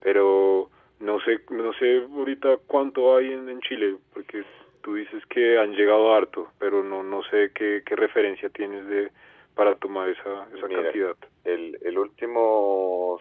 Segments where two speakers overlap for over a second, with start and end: none

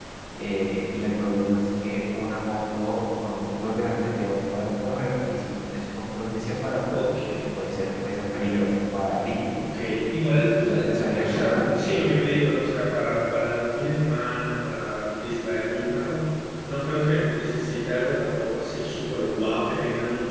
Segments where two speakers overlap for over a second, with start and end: 10.4-12.2

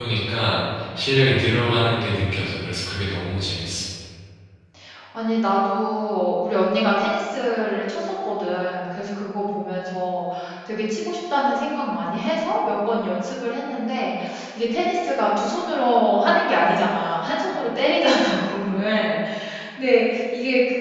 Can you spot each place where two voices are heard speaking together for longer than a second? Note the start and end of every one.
none

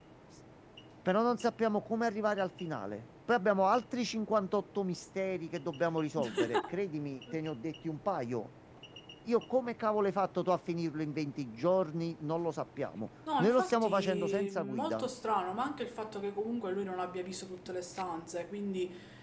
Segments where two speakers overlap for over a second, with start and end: 13.4-15.1

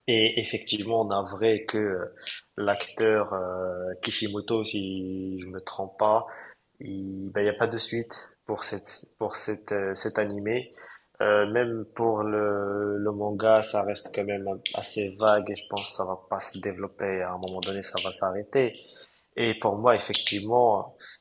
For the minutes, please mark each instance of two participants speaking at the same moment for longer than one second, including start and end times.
none

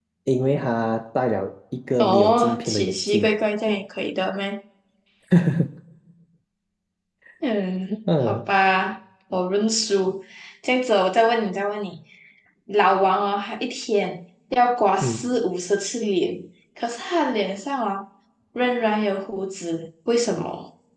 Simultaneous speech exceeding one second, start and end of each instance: 2.0-3.3

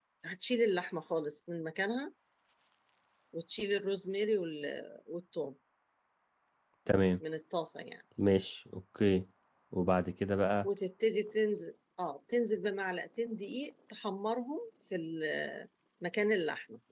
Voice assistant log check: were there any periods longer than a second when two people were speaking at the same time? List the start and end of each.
none

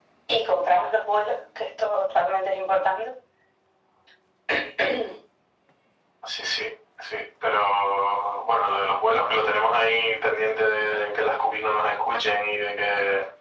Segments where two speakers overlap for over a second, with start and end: none

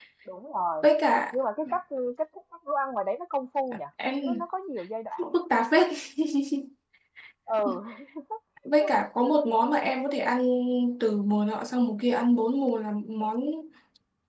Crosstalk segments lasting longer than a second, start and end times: none

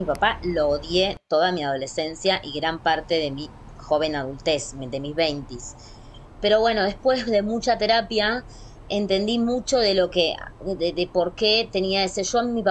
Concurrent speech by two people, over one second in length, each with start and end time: none

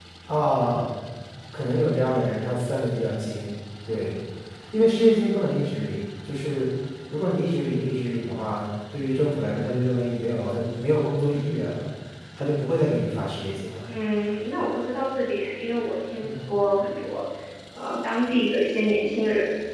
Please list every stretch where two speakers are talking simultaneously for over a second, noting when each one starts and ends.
none

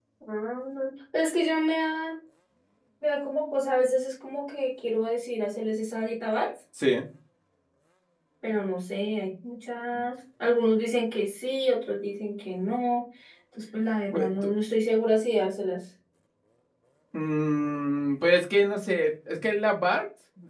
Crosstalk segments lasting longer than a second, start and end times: none

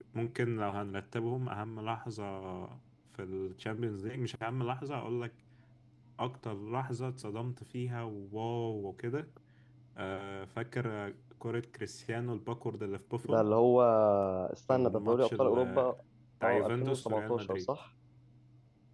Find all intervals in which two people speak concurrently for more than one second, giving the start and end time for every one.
14.7-16.0, 16.4-17.7

